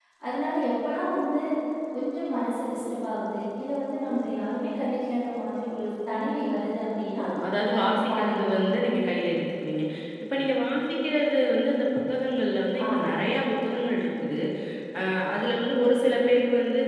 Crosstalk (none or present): present